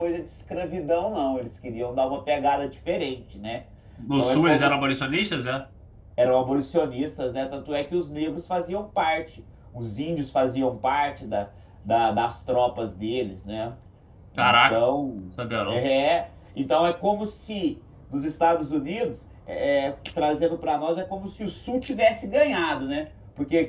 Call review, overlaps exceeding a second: none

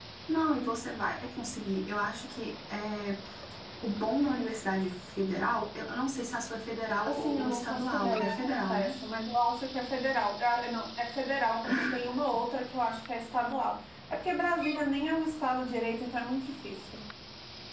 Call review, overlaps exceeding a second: present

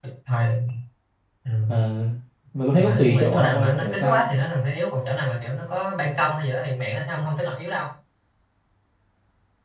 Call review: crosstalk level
present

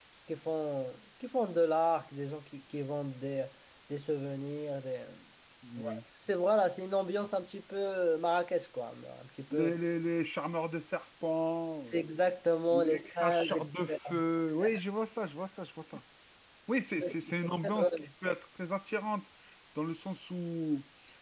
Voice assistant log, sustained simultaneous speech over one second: present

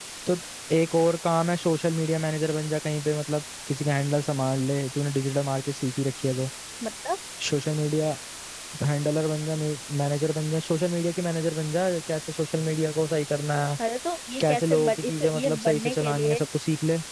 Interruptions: present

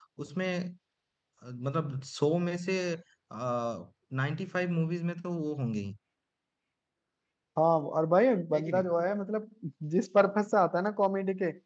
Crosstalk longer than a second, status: none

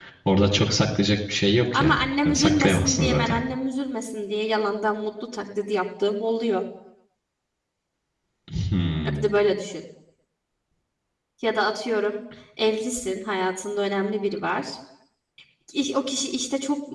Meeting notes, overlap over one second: present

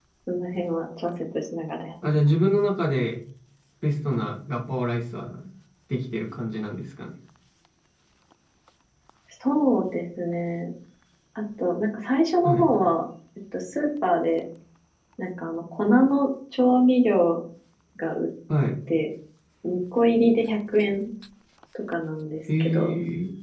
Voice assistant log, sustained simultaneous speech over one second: none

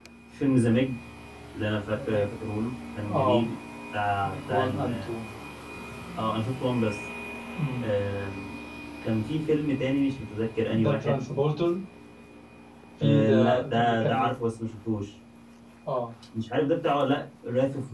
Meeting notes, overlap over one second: present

